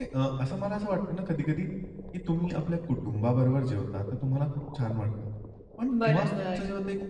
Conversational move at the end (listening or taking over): listening